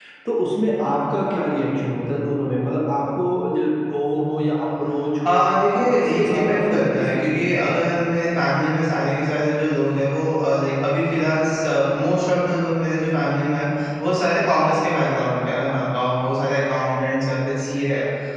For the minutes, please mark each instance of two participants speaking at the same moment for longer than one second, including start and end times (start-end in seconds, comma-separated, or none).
5.3-7.8